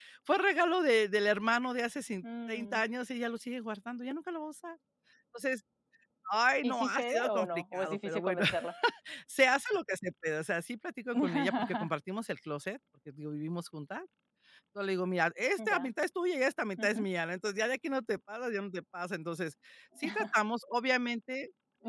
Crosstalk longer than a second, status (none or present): present